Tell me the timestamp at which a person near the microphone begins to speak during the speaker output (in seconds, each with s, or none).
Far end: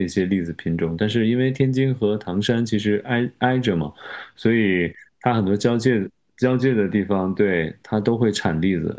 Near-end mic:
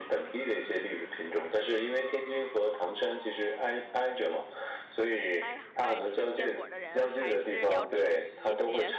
5.4 s